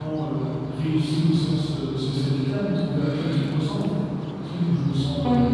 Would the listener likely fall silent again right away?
Yes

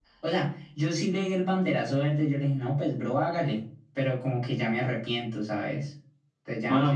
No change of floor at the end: No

